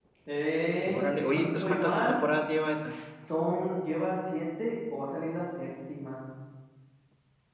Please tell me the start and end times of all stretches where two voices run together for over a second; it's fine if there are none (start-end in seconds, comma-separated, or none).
0.8-2.2